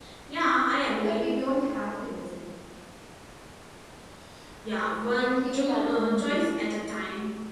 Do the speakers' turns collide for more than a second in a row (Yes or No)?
Yes